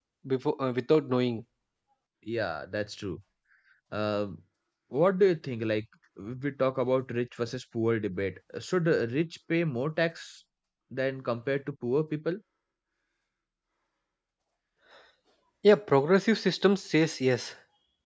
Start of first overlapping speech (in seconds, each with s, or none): none